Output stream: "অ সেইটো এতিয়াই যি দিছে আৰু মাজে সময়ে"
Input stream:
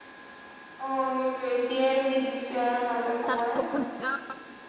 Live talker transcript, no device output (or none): তাতে বহত জেগা আছে